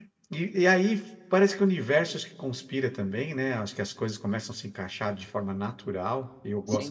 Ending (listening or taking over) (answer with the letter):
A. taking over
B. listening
B